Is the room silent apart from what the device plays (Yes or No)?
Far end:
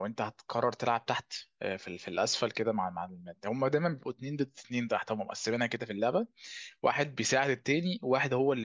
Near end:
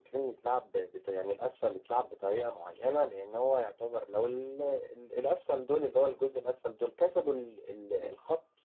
No